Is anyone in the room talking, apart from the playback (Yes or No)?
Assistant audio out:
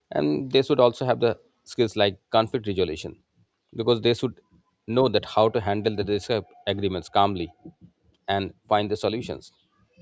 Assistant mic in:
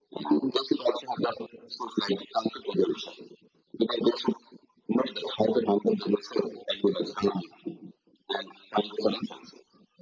No